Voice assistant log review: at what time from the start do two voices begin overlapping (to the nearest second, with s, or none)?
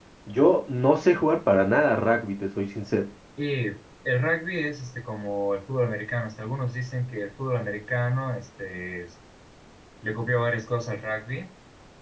none